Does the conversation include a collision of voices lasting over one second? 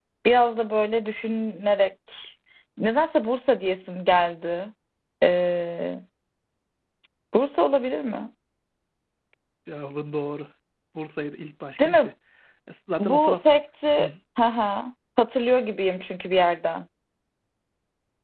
No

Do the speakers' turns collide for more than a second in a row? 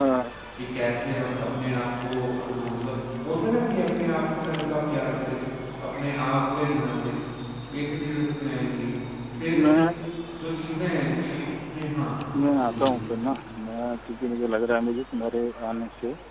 No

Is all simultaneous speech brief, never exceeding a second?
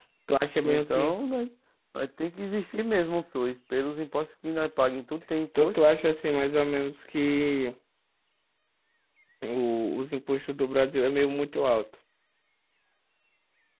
Yes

